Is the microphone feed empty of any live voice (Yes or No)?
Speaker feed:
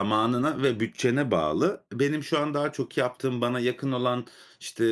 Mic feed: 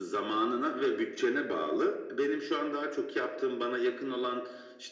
Yes